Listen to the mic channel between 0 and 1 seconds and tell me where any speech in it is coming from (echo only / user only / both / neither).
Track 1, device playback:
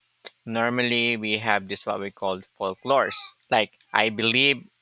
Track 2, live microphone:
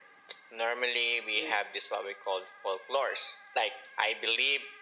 echo only